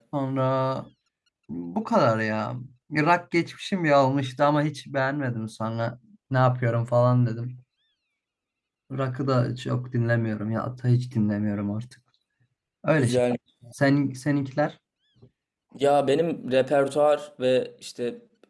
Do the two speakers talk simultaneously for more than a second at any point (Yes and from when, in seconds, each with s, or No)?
No